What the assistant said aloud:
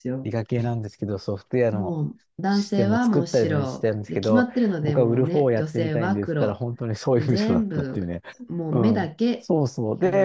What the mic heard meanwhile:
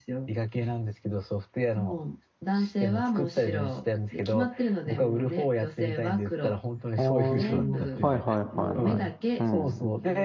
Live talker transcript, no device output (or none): あーはいはいはいはい。うん、